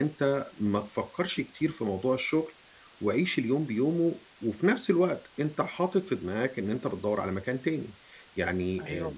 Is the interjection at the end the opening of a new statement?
Yes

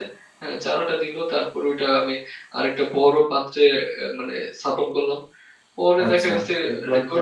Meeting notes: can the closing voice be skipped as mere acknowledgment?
No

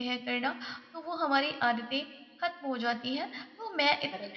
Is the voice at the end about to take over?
No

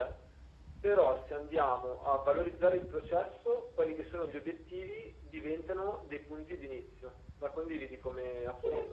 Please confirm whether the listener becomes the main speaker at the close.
Yes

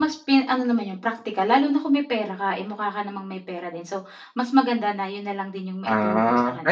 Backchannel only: No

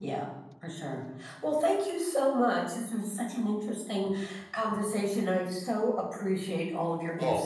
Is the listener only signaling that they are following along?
No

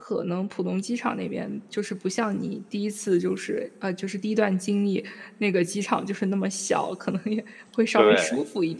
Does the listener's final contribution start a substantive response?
No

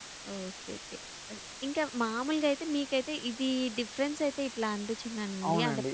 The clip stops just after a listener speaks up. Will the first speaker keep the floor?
Yes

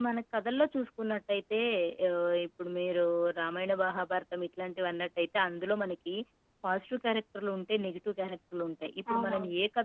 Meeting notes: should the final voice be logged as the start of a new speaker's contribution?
No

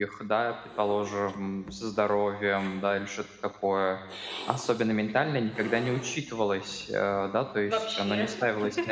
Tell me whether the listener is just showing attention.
Yes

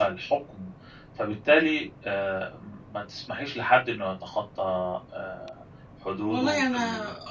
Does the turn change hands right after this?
Yes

